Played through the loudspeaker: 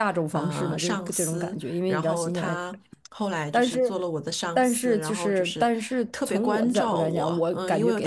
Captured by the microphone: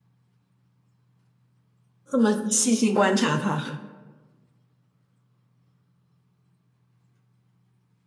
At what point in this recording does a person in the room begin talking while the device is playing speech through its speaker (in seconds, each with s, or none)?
2.1 s